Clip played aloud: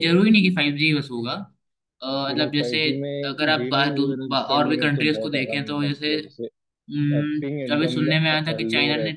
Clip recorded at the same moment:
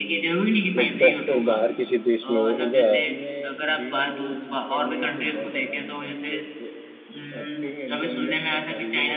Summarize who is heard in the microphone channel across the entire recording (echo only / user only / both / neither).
both